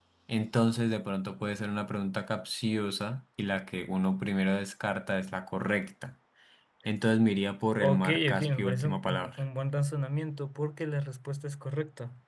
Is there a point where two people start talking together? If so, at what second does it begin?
7.8 s

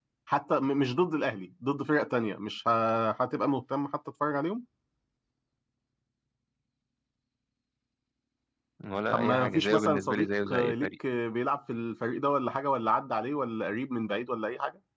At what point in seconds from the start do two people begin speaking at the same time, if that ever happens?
9.1 s

